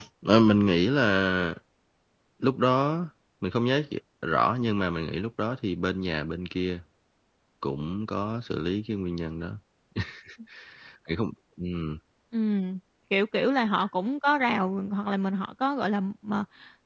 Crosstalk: none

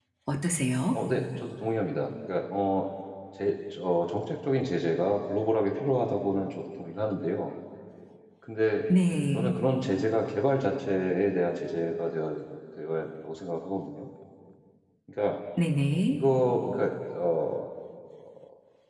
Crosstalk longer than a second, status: none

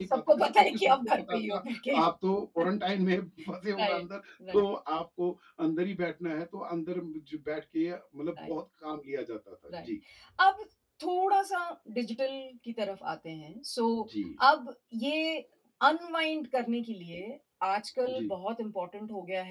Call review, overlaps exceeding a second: present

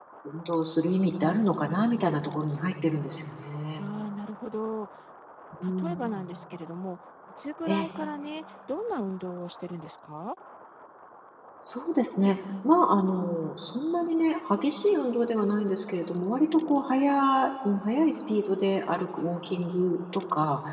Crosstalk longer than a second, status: none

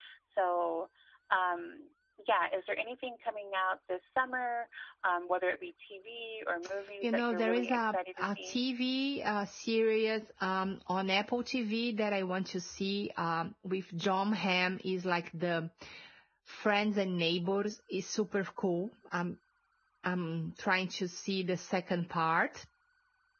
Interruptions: present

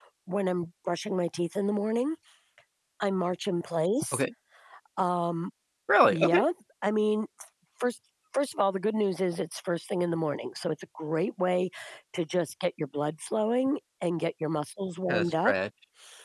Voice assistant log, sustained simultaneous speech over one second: none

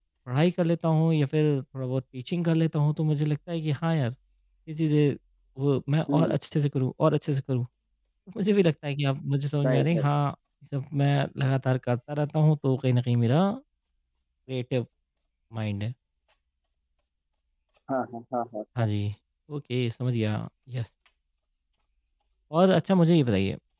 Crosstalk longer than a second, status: none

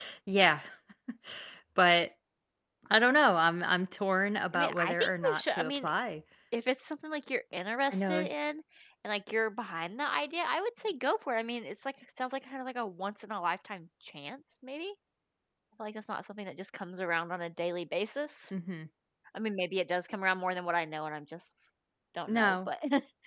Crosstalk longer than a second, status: present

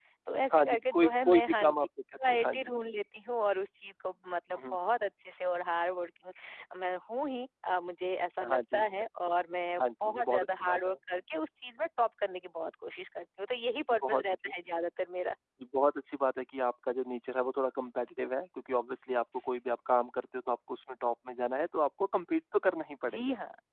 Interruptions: present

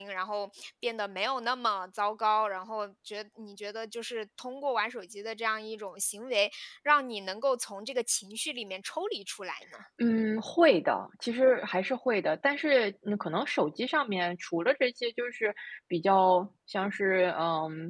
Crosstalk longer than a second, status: none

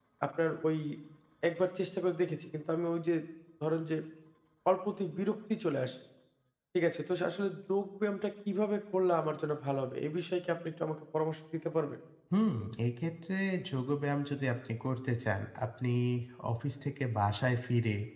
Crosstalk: none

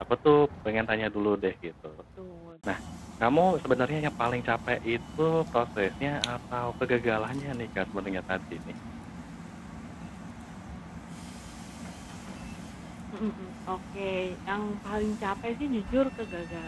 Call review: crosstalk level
none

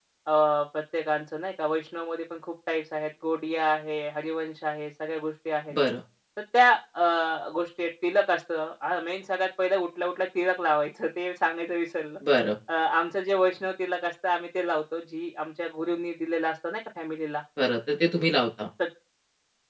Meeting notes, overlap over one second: none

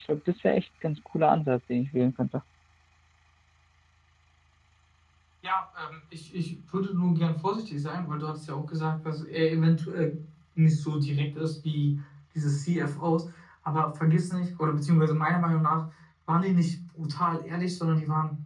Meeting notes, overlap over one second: none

